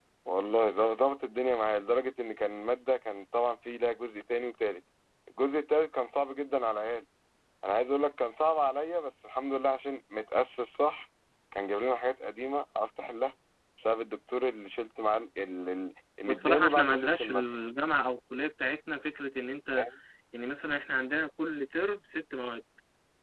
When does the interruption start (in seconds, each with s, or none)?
16.3 s